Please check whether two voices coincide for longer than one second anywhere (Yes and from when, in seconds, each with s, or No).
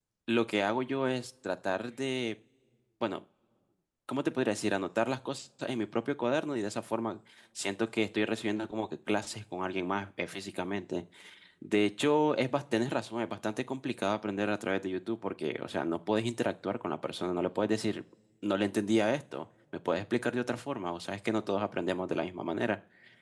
No